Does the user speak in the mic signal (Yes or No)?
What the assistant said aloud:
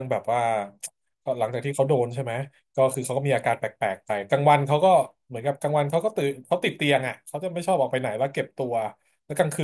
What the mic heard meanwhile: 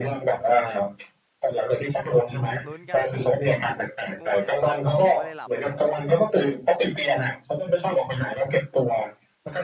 Yes